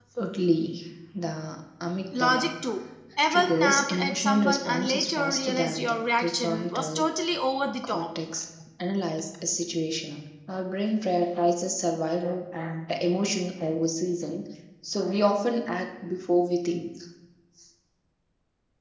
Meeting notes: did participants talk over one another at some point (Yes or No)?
Yes